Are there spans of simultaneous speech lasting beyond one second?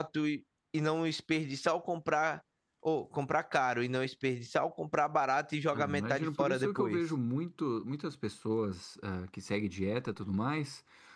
Yes, from 5.7 s

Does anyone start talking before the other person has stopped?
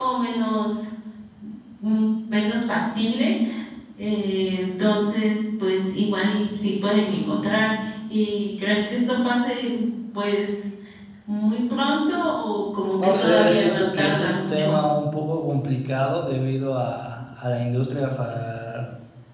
Yes, from 13.0 s

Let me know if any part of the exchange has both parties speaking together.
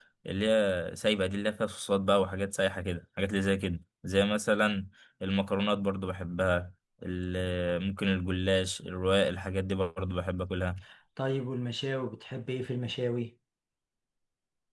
No

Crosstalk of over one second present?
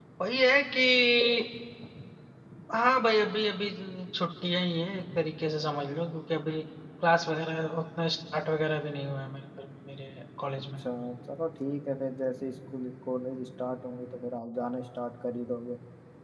No

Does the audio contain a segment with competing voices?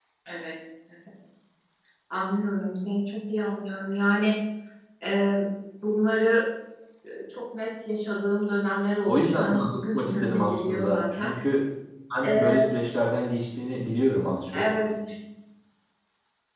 Yes, from 9.1 s

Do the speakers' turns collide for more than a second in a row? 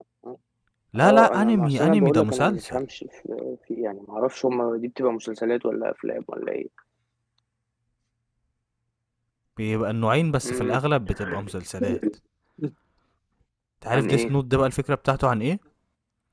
Yes, from 1.0 s

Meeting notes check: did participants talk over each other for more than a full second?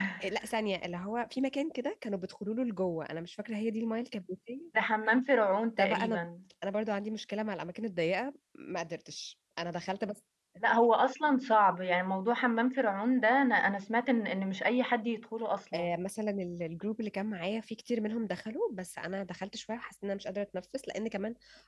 No

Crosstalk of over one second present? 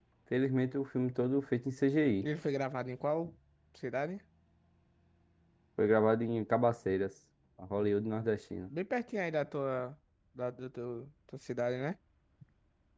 No

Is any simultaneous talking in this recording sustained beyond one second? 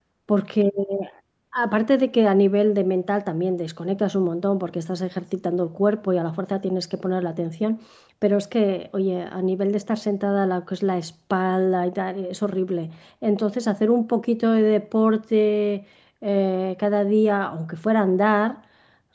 No

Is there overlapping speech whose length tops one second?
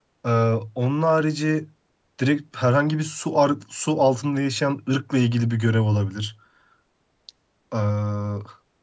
No

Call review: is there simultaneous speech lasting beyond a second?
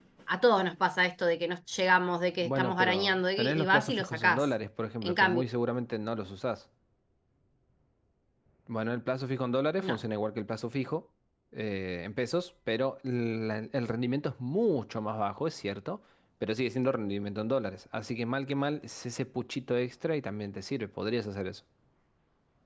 Yes, from 2.4 s

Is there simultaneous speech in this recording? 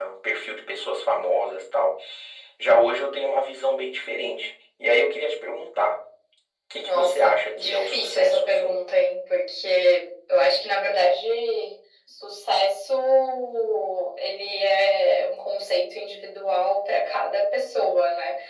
Yes, from 6.8 s

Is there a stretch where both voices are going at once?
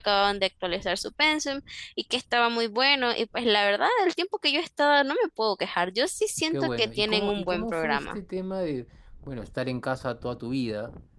Yes, from 6.5 s

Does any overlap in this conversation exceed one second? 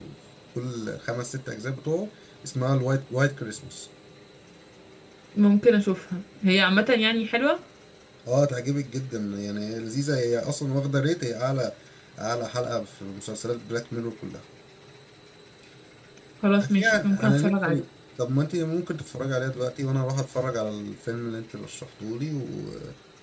Yes, from 16.6 s

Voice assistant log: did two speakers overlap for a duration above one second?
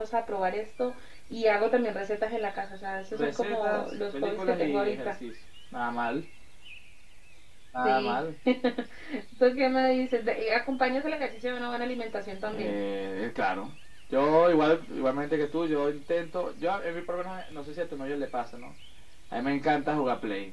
Yes, from 3.1 s

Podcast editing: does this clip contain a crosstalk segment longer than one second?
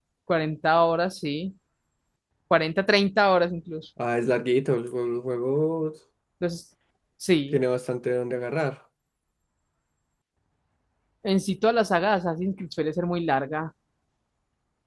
No

